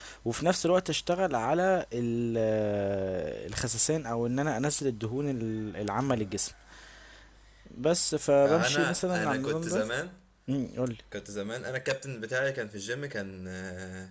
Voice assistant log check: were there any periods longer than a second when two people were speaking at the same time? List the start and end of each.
8.4-9.8

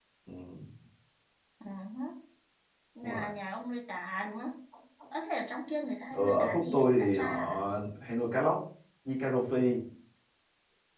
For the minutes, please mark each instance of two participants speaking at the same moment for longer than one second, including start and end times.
6.1-7.6

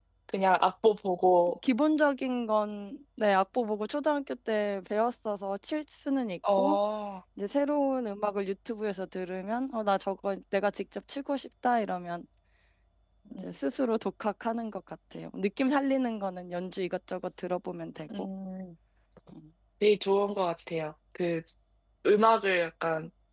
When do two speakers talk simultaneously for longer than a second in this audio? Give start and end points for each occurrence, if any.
none

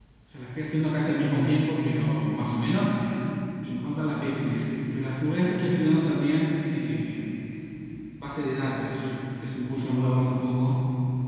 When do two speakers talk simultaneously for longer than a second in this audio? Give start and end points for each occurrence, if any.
none

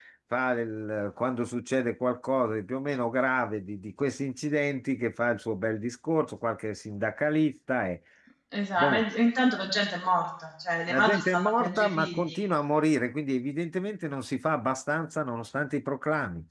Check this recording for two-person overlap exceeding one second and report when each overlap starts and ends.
10.9-12.4

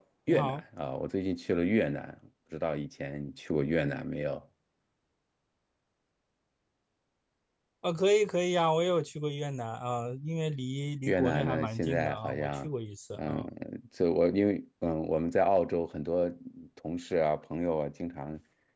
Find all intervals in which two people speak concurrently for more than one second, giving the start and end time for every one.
11.1-12.7

